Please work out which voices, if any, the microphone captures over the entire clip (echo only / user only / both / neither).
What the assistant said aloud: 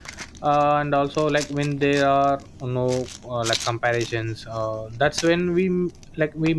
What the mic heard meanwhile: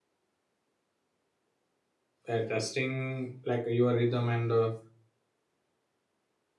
user only